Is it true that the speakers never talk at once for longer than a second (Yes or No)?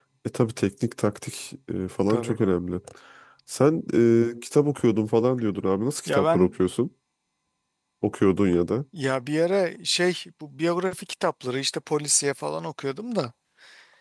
Yes